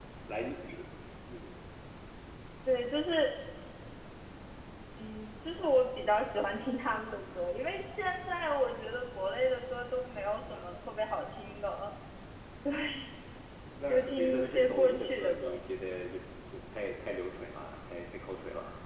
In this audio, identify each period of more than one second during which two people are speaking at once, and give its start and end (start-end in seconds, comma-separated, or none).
13.9-15.6